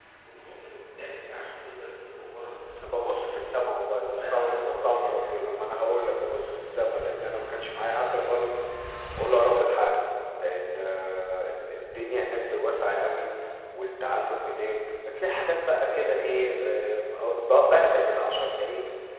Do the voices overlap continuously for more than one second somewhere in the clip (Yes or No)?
Yes